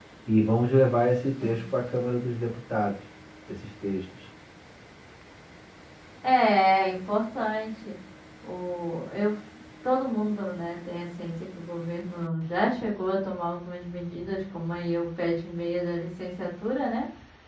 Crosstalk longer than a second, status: none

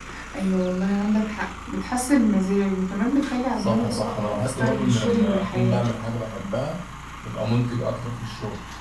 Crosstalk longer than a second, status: present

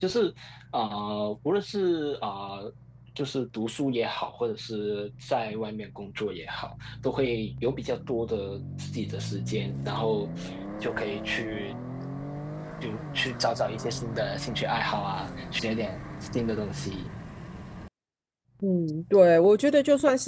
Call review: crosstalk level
none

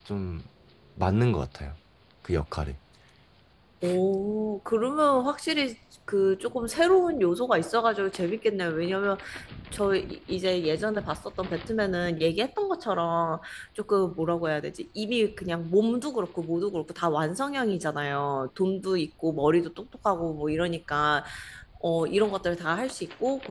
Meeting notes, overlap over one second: none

